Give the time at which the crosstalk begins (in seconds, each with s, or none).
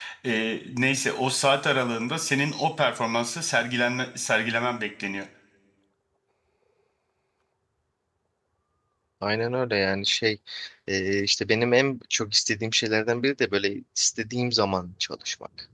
none